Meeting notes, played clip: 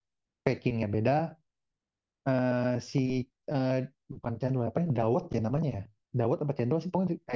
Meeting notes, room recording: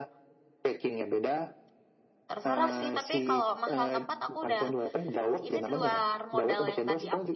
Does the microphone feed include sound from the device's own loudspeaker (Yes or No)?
Yes